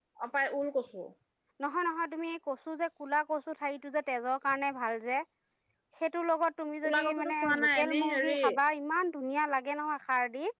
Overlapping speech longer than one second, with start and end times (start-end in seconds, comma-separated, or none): 6.8-8.3